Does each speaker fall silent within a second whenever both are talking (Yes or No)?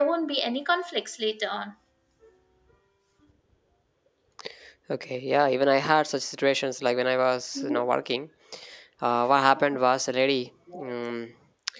Yes